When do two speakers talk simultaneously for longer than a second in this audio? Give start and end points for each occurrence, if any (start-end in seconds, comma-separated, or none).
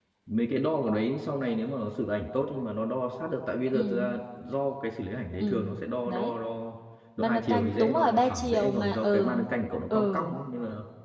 7.2-9.4